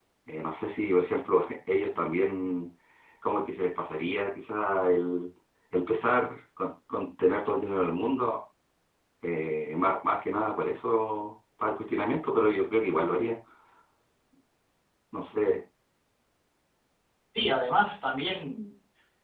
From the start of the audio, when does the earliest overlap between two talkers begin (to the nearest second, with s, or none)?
none